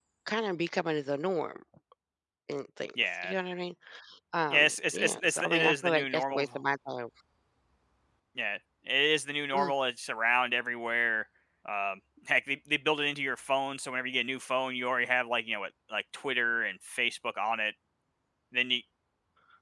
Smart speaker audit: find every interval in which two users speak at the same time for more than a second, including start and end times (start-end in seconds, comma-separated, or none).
4.5-6.5